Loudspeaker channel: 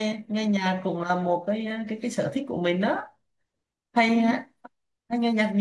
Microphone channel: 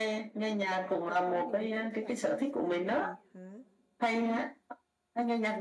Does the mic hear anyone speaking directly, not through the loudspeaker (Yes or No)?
Yes